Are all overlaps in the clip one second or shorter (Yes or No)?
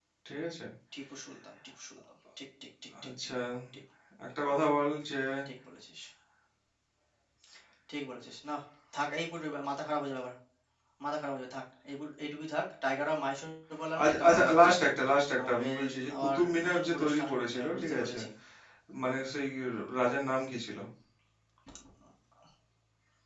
No